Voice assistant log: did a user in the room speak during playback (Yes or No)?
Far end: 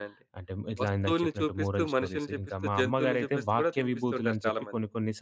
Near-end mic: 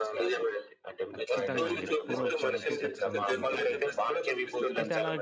Yes